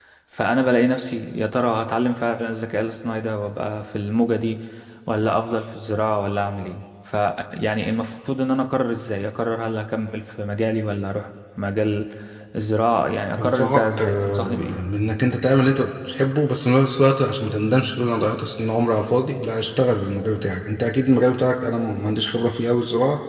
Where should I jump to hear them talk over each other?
13.4 s

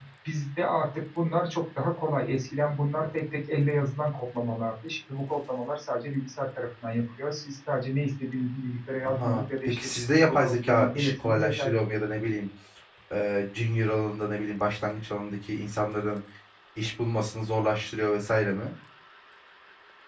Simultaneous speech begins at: 9.0 s

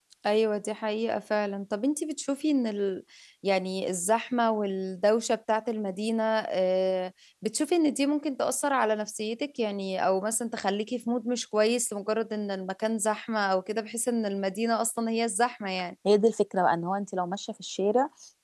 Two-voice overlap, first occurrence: none

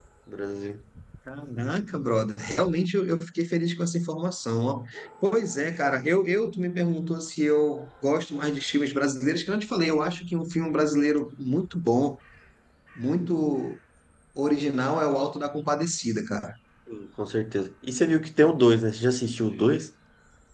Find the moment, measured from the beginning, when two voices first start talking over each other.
none

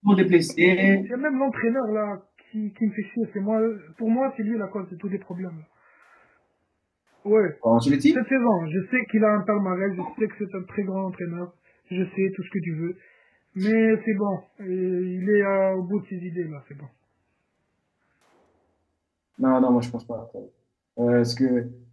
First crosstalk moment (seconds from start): none

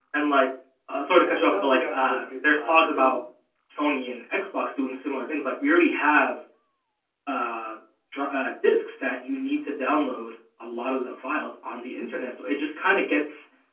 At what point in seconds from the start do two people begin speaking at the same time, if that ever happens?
1.2 s

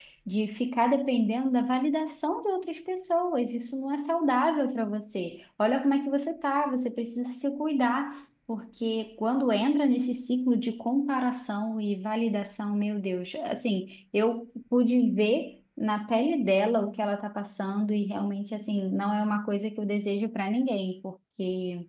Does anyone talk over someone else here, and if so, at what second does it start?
none

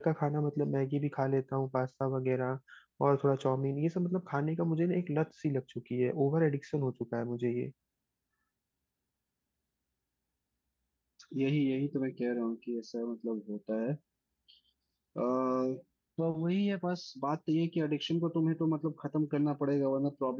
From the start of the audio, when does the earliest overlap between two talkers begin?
none

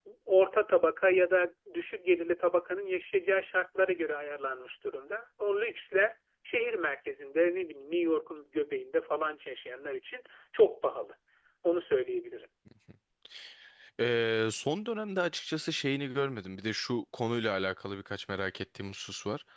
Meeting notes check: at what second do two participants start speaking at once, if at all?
none

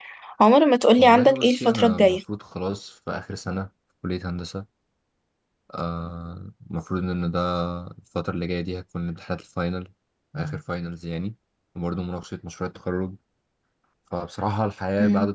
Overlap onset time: 1.0 s

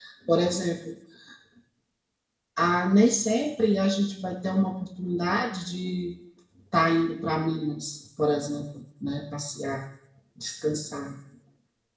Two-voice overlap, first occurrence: none

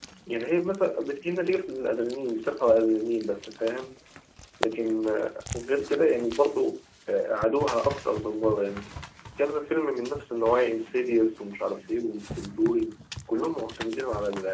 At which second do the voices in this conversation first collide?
none

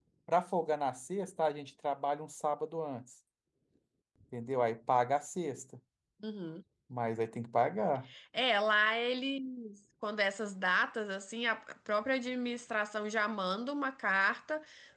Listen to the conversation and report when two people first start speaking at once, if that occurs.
none

